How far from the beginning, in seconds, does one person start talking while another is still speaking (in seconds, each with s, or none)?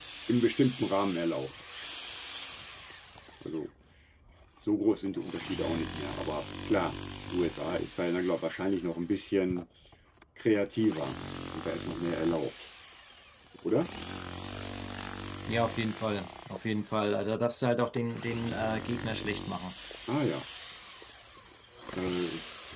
none